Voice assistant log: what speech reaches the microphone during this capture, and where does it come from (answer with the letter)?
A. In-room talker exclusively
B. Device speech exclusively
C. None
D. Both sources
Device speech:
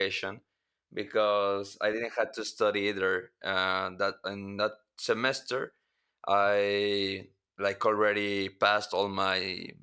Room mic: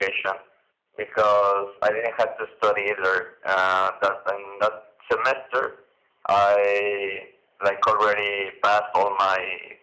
B